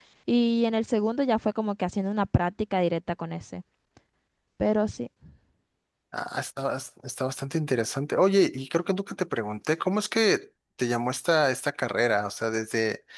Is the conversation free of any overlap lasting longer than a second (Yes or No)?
Yes